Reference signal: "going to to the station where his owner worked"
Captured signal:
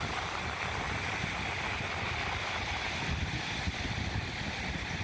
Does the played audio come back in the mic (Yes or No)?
No